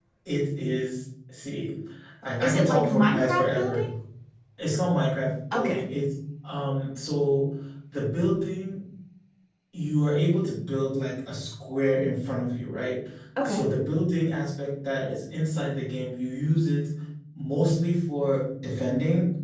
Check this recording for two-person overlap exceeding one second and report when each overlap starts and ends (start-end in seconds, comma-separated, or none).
2.4-3.9